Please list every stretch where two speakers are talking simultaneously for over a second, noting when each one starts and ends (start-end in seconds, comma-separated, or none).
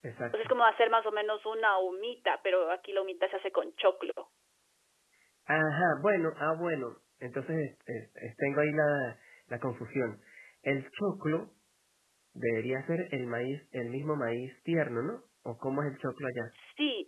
none